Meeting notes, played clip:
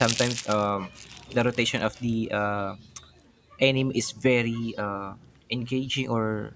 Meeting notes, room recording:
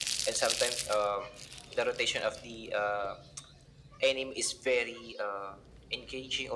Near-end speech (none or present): none